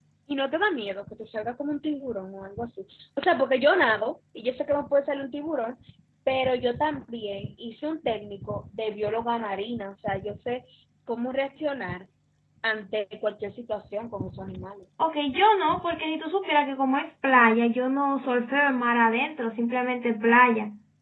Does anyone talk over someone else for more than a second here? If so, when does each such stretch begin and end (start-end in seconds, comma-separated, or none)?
none